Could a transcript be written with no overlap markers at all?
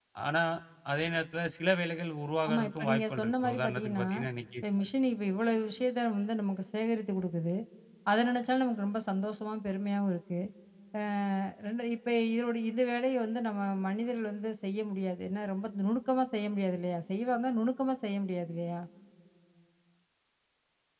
No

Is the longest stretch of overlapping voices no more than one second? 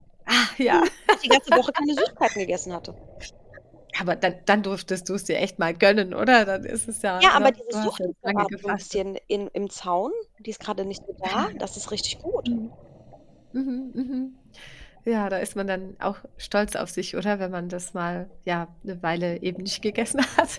No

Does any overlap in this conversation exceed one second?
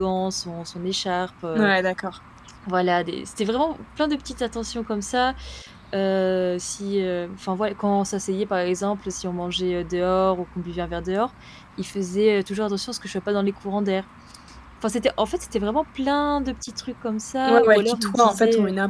Yes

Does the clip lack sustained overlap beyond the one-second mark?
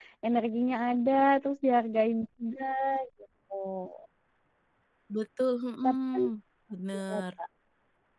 Yes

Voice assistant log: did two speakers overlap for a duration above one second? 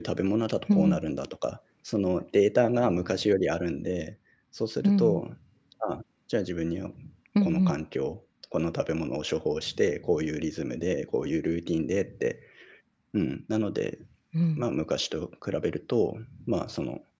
No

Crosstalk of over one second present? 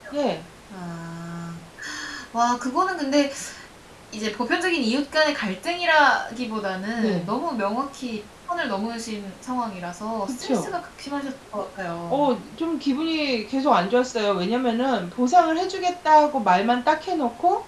No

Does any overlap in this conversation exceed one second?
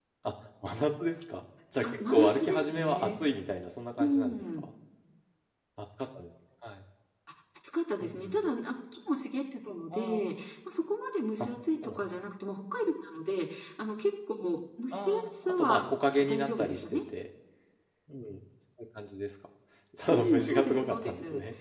Yes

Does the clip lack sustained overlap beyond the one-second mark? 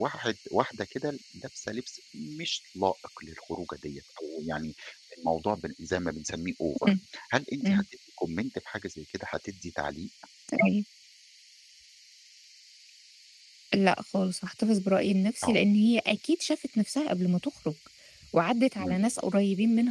Yes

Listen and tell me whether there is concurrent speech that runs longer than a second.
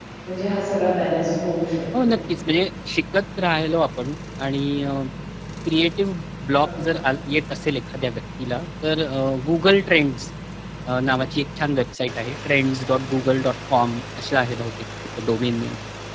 No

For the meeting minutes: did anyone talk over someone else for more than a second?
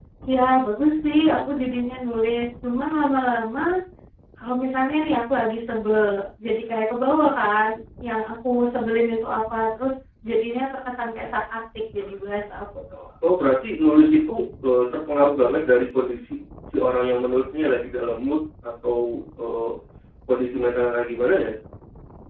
No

